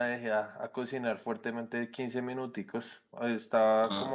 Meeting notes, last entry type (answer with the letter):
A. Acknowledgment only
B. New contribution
A